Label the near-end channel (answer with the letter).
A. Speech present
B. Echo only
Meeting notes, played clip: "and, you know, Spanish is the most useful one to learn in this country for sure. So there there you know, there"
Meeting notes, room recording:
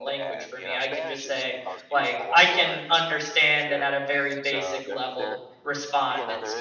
A